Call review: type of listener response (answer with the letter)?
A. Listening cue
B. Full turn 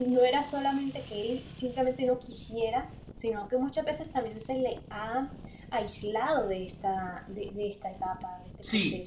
B